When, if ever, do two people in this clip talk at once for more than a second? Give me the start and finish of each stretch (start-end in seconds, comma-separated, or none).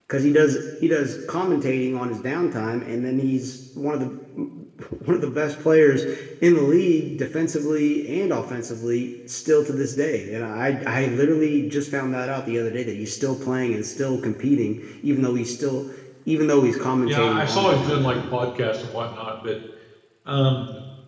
17.1-18.3